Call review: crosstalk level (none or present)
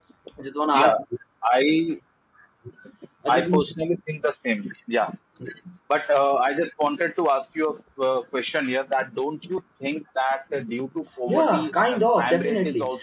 present